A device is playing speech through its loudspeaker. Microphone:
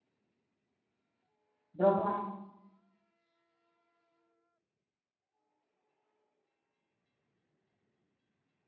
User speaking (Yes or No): Yes